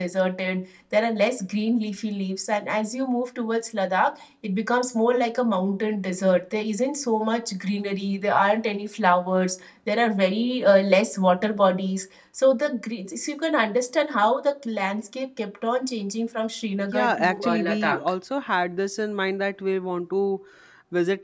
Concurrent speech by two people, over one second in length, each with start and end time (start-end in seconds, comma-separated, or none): 16.8-18.1